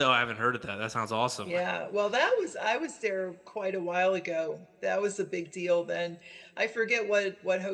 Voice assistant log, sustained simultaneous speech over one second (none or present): none